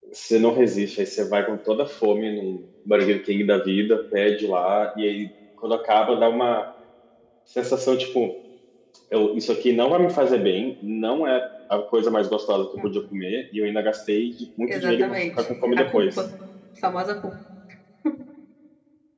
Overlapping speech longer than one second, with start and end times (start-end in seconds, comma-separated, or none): 14.7-16.2